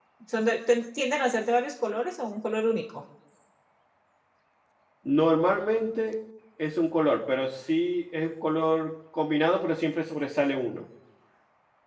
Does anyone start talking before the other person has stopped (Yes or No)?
No